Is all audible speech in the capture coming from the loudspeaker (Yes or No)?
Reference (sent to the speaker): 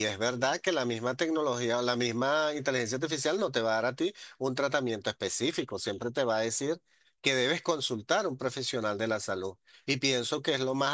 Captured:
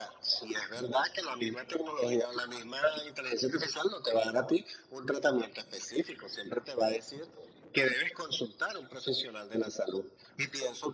Yes